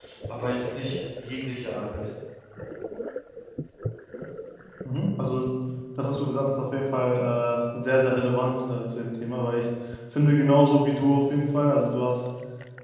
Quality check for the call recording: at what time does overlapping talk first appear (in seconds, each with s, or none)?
none